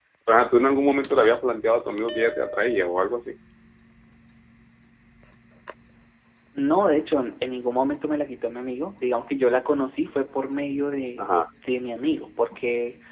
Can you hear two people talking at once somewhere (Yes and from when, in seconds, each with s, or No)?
No